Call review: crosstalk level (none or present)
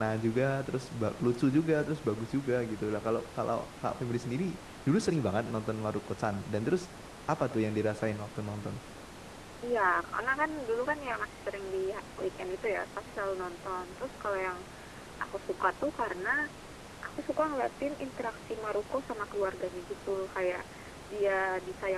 none